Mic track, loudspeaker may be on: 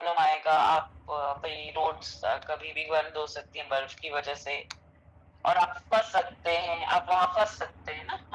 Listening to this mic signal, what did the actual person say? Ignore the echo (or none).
none